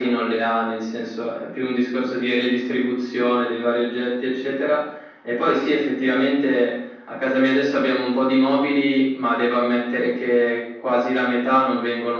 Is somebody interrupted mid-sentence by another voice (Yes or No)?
No